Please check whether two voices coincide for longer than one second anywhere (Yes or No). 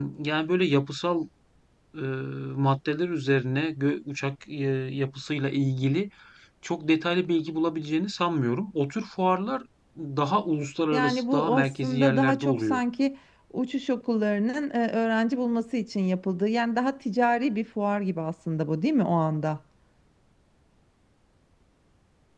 Yes